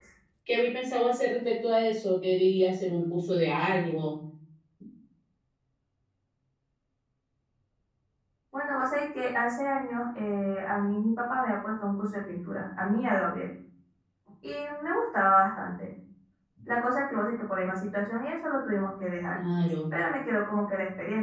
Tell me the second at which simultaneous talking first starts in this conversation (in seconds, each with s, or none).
none